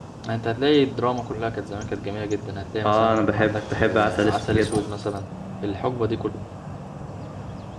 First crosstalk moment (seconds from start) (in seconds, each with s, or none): 2.8 s